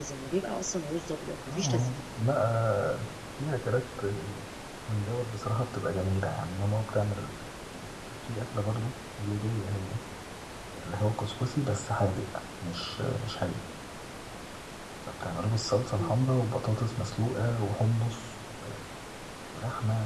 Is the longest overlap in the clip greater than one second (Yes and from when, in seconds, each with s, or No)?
No